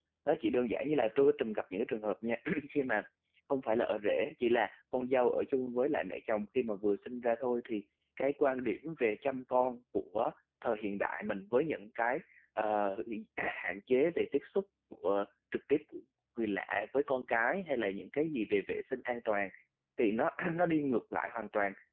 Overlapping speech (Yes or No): No